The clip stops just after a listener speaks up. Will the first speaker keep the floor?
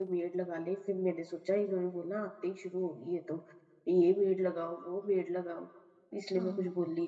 No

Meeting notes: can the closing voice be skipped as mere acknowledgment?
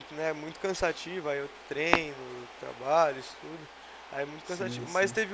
Yes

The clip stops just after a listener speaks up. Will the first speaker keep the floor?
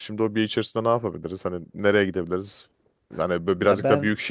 Yes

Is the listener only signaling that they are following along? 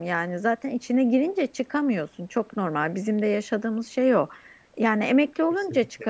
Yes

